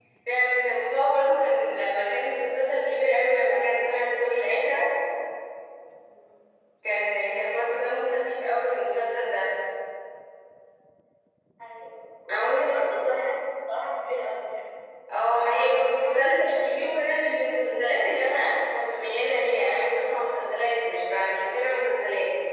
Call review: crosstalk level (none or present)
present